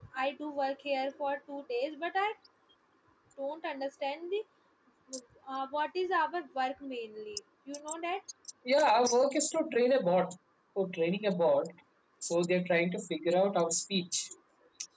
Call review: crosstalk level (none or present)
none